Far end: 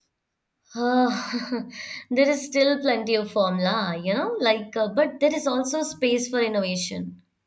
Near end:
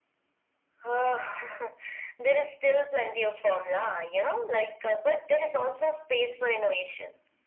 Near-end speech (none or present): none